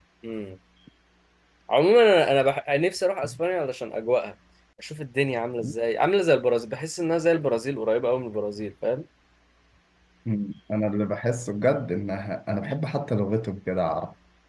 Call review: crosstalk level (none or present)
none